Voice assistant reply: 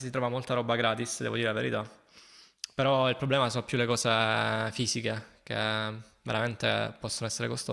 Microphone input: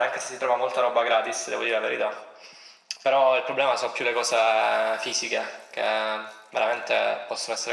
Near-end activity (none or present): none